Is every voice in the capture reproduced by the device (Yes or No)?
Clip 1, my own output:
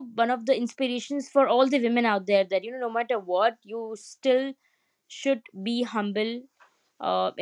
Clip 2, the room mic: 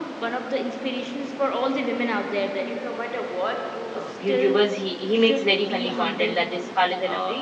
No